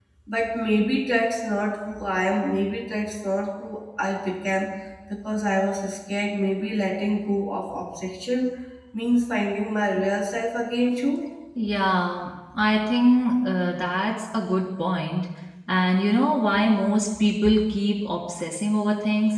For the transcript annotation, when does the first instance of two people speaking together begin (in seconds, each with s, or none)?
none